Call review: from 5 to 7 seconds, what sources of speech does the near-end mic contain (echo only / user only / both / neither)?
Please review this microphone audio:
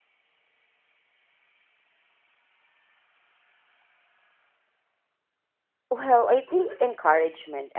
user only